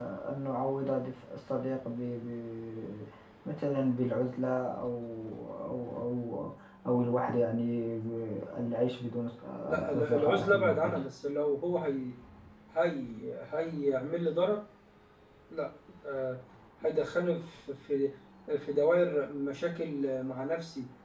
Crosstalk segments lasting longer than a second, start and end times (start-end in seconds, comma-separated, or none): 9.7-11.0